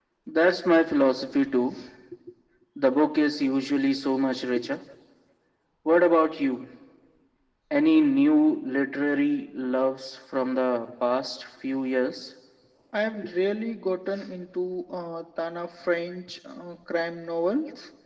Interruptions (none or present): none